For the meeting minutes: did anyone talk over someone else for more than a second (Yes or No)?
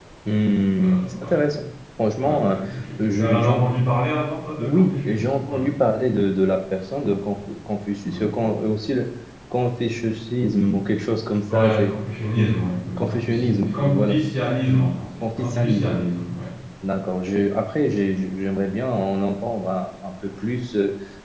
Yes